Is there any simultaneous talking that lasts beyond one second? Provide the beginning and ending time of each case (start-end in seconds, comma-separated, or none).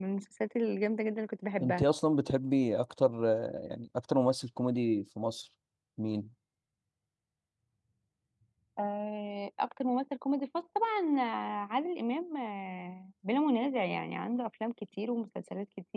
none